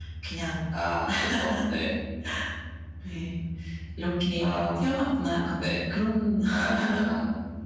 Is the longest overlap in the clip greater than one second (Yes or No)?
No